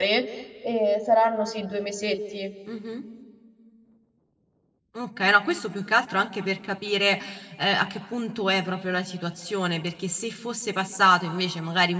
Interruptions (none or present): none